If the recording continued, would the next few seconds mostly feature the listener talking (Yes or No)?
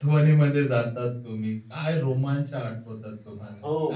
Yes